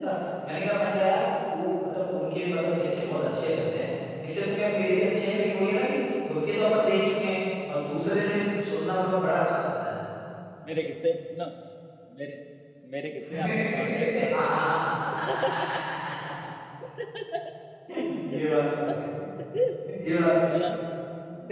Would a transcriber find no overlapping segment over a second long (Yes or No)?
Yes